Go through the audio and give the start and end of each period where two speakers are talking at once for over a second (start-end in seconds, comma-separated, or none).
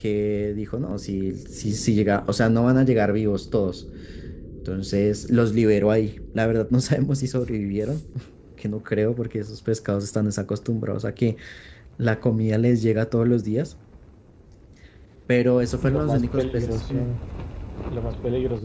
15.8-17.1